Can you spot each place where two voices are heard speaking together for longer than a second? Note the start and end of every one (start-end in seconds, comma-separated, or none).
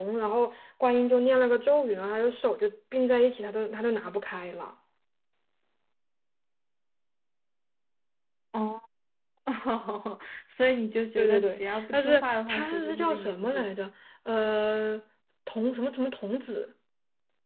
11.2-13.7